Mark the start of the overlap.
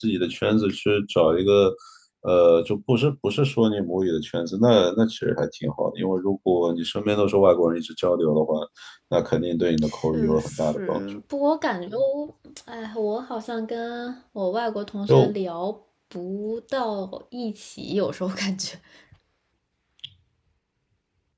9.8 s

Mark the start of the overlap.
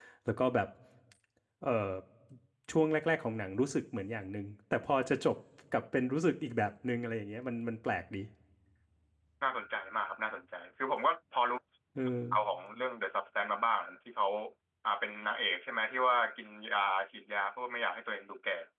none

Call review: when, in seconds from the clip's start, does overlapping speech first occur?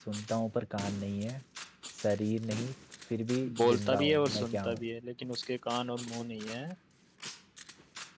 3.4 s

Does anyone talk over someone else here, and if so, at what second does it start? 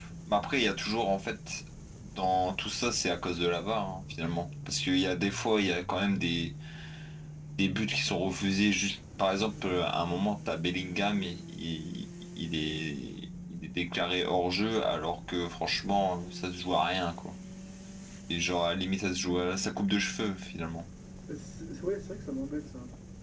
none

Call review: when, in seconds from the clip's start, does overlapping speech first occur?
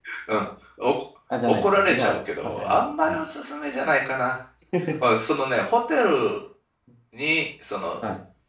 1.5 s

